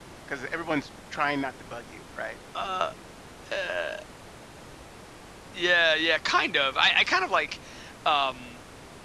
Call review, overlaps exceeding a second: none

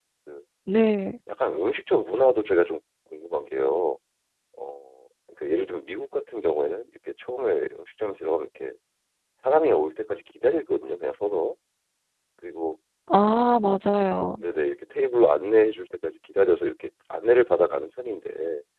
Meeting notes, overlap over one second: none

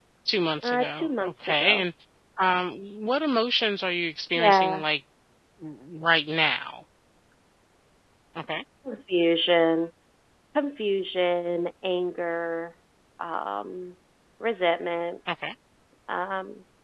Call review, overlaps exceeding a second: present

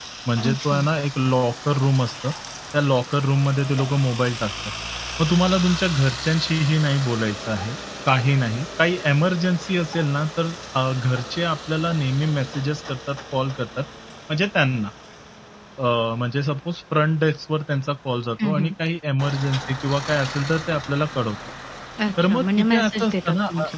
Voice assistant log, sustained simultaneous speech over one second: present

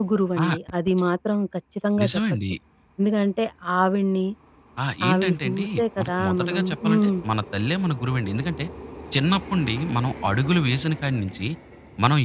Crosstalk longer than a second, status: present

